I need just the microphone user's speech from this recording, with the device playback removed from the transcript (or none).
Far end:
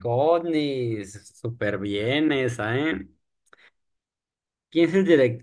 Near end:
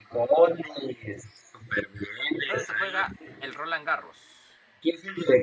¿Dónde se juega el Roland Garros?